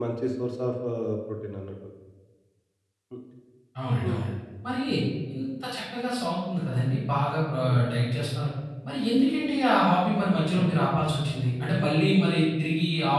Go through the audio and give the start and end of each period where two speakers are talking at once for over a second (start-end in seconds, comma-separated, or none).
none